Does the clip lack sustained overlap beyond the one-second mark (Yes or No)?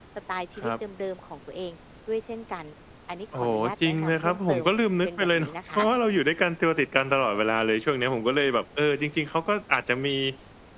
No